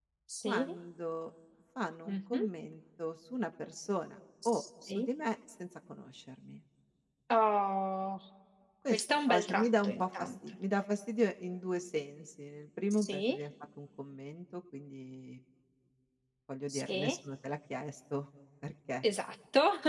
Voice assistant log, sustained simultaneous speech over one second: present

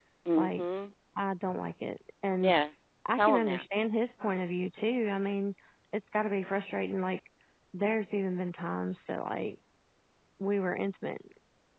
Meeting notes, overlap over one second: none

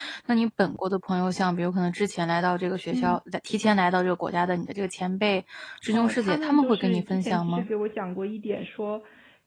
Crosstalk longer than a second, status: present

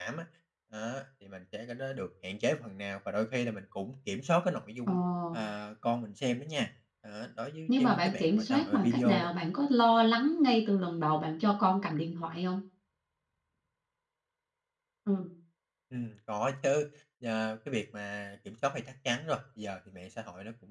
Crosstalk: present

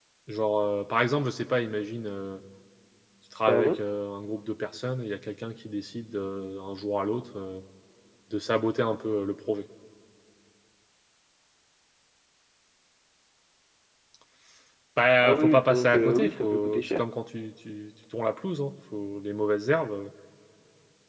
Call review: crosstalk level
present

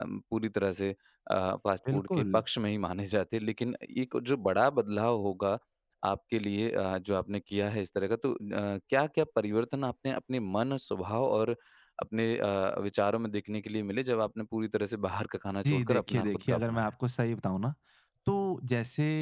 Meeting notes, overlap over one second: present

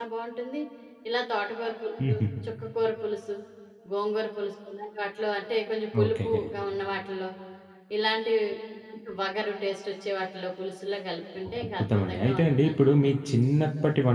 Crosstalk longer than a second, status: present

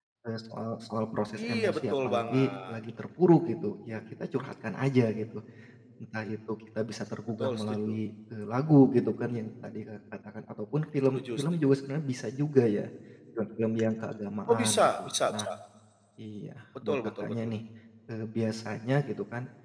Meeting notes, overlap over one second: present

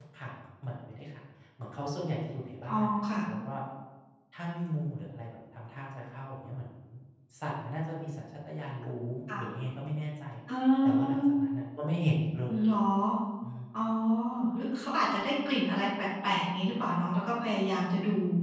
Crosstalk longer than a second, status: none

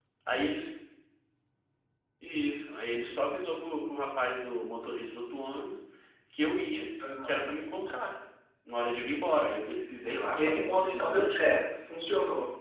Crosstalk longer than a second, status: present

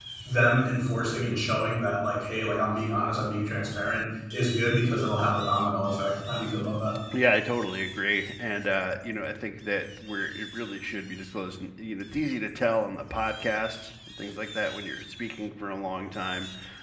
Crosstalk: none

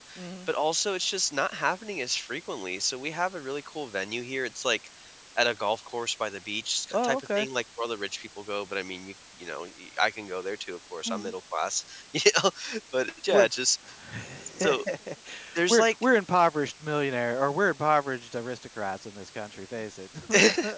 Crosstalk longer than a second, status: none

